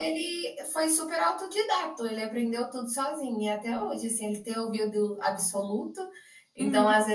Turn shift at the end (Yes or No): No